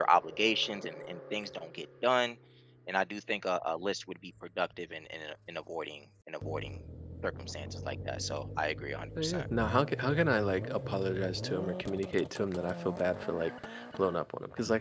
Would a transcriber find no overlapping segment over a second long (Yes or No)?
Yes